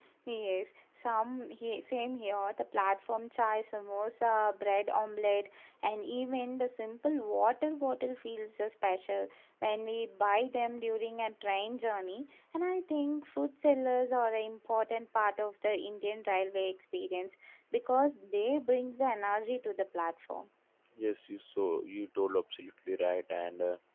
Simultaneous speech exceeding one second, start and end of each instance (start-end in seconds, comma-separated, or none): none